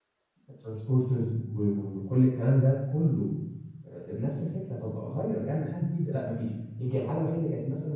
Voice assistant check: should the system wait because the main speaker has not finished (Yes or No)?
Yes